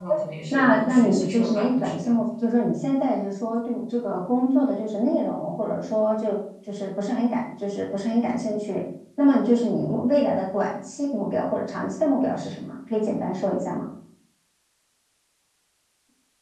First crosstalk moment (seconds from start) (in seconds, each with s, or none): 0.5 s